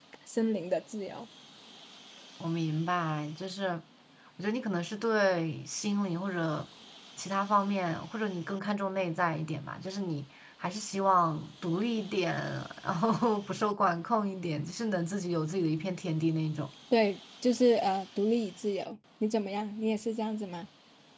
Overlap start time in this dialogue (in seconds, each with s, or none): none